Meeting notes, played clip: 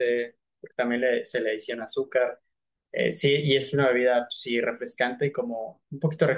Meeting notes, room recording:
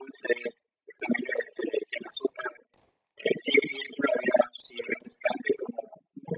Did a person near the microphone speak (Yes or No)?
No